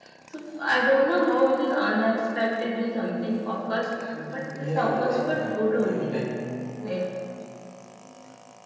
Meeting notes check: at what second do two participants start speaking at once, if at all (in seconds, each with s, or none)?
4.5 s